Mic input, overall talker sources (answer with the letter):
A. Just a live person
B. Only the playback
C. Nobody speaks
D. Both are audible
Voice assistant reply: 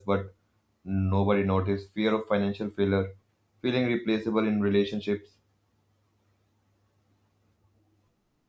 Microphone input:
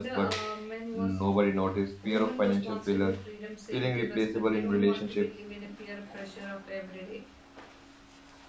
D